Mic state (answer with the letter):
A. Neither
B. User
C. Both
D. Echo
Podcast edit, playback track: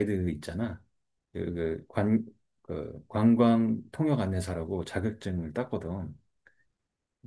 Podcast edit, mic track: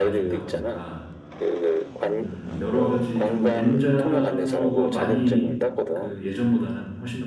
C